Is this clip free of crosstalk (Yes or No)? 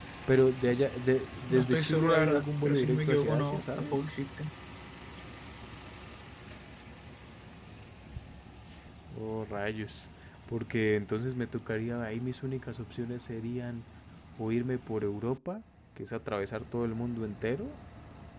No